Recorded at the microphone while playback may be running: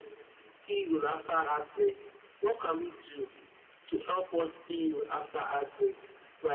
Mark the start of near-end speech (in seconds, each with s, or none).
none